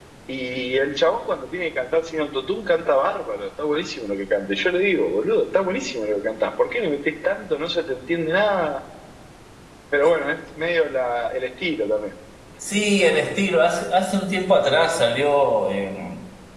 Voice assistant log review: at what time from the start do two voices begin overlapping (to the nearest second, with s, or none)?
none